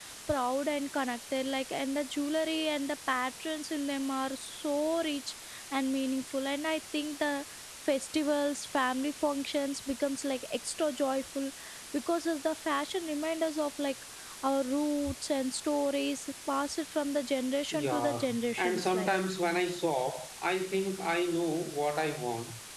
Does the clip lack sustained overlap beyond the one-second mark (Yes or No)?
No